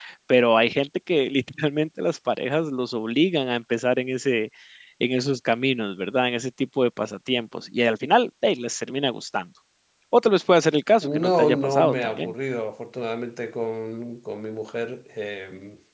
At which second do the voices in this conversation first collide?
11 s

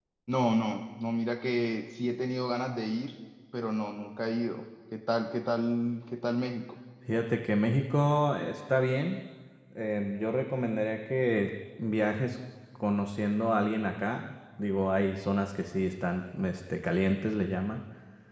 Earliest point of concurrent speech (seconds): none

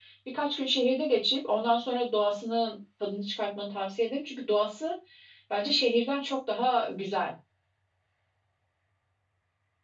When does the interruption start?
none

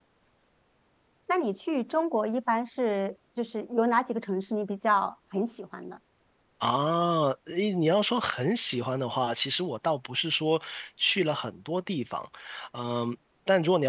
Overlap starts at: none

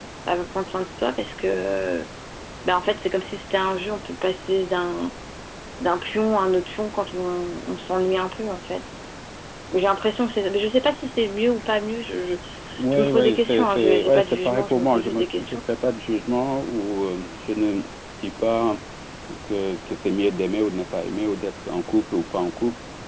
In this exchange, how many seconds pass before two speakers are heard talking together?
13 s

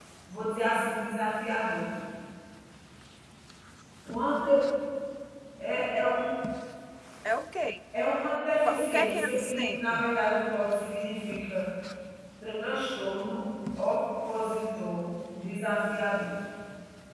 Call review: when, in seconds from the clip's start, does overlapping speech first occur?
9 s

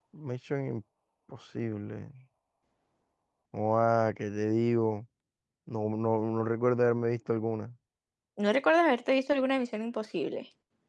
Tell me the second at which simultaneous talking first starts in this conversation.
none

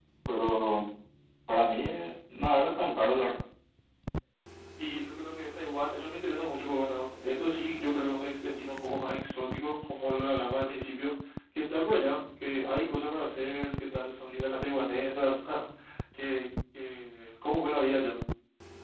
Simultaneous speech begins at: none

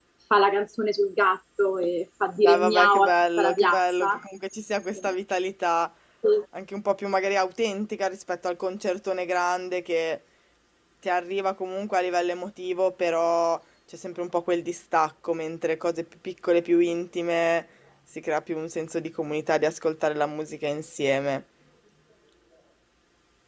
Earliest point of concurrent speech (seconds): 2 s

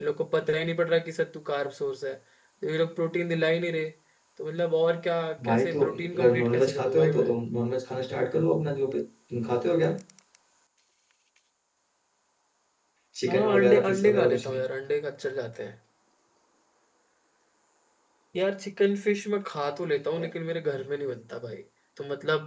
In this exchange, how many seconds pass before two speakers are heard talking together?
5 s

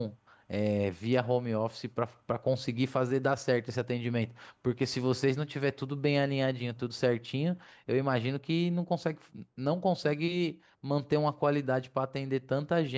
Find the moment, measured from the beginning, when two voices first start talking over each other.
none

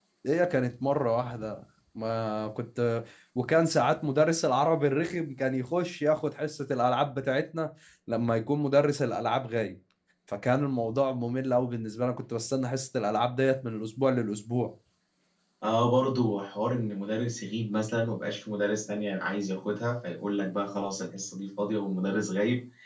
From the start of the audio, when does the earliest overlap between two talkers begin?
none

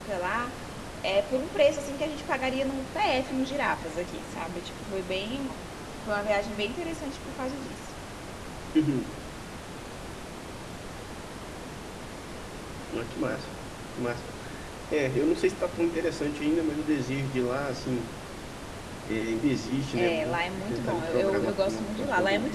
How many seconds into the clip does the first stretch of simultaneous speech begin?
20 s

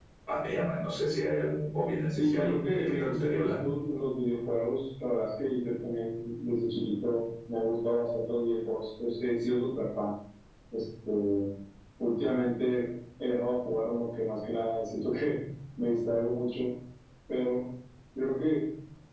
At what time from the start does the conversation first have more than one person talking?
2 s

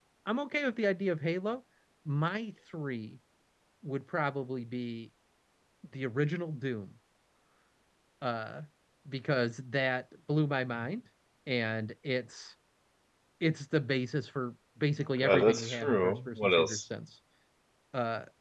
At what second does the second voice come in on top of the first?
15 s

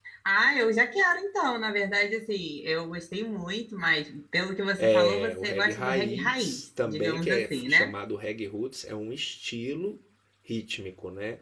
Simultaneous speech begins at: 5 s

